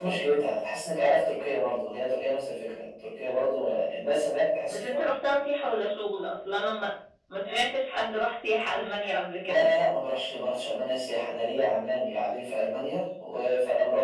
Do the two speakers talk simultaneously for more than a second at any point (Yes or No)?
No